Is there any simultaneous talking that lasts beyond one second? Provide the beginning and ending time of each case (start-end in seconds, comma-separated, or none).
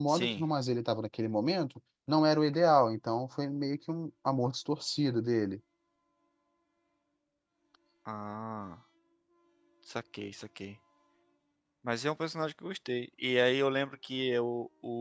none